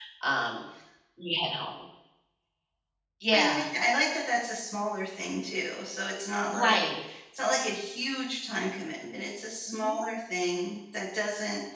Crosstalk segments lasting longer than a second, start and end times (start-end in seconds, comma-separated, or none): none